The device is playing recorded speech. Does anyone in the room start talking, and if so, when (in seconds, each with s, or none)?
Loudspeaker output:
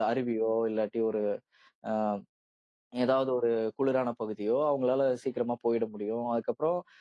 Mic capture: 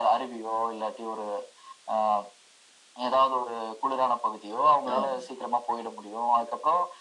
4.8 s